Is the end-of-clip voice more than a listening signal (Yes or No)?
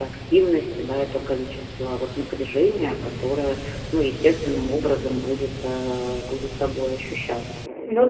Yes